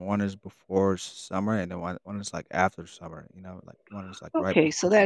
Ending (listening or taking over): taking over